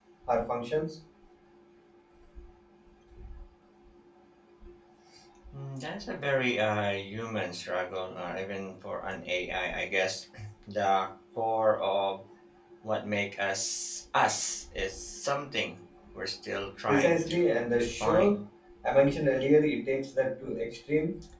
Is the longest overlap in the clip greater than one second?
Yes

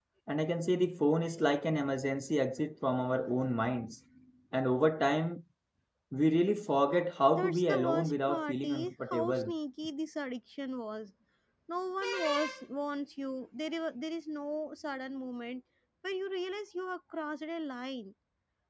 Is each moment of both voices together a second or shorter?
No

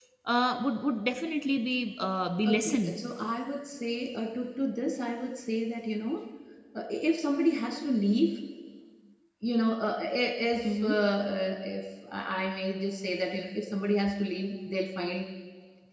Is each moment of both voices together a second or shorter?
Yes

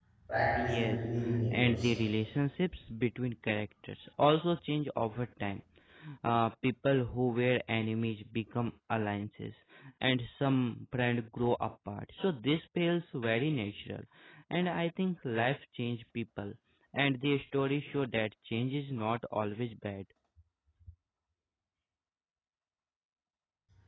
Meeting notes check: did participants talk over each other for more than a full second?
Yes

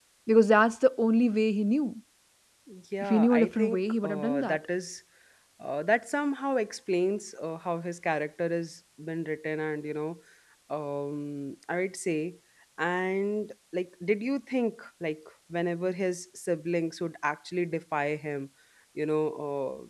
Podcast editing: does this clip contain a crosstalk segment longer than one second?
Yes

